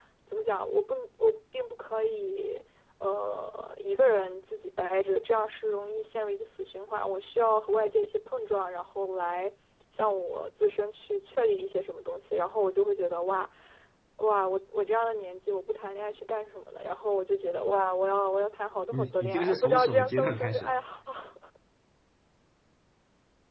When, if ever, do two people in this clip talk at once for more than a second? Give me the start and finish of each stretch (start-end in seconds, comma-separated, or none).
18.9-20.8